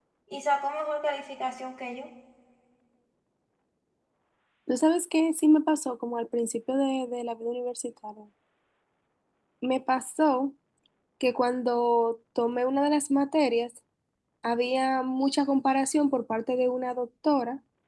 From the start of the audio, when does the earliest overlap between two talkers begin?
none

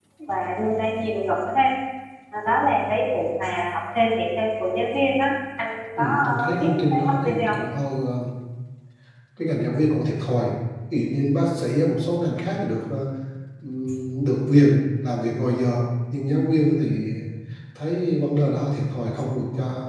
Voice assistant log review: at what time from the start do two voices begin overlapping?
6.0 s

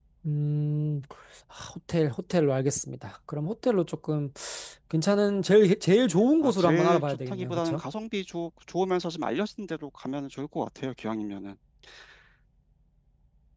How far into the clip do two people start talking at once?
6.4 s

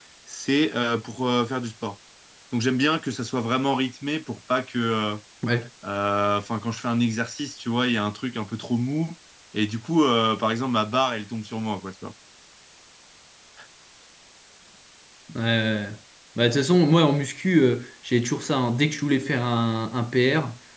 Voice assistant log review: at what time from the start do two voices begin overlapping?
none

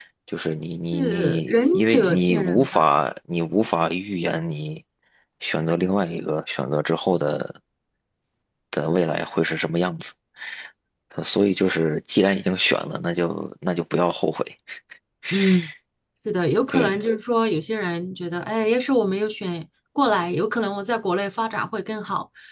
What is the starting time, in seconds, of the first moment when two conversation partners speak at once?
0.9 s

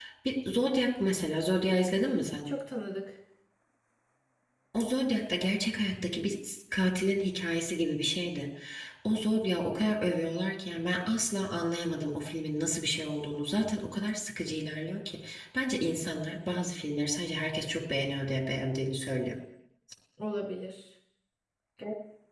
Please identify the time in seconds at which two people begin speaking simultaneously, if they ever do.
none

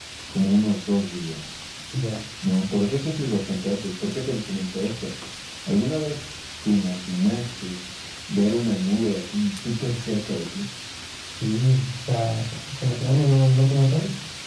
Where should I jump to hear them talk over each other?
none

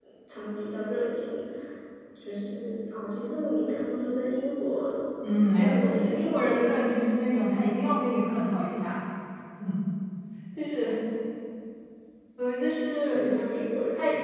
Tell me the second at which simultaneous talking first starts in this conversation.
5.6 s

